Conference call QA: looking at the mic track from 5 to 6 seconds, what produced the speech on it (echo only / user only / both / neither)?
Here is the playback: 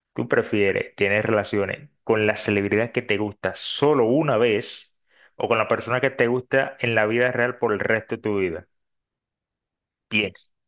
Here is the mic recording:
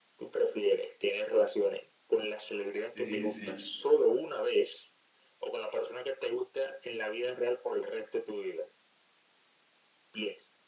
echo only